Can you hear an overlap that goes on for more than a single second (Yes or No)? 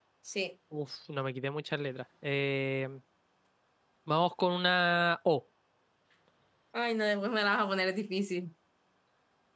No